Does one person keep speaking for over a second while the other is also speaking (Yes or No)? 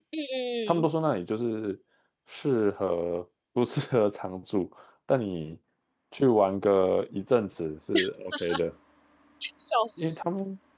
No